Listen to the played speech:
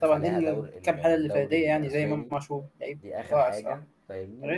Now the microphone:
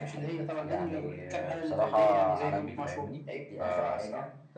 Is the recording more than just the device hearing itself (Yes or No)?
Yes